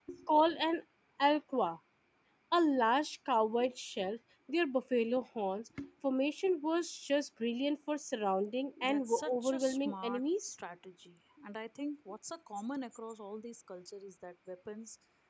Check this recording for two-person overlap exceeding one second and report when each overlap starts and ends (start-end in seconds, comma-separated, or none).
8.8-10.6